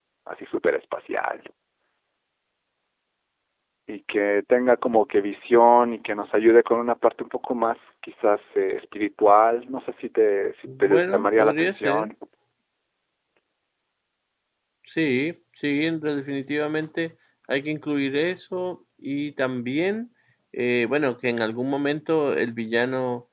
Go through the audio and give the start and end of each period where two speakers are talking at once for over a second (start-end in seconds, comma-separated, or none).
10.7-12.1